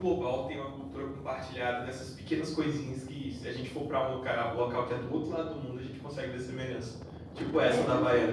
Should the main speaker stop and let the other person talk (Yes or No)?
Yes